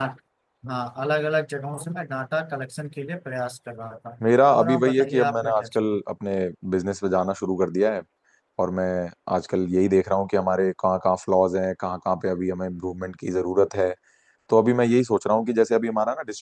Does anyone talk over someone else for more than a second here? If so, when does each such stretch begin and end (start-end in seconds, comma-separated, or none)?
4.5-6.0